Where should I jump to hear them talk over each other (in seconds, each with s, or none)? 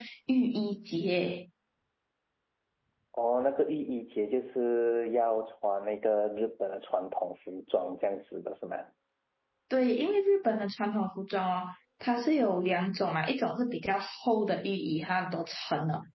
none